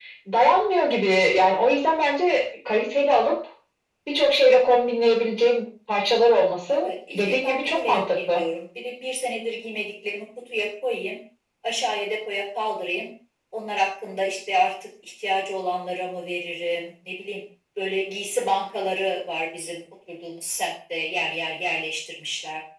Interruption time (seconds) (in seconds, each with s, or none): 6.7 s